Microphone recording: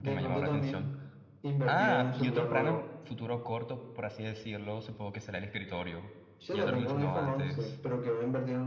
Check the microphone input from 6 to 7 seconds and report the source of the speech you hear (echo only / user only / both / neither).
both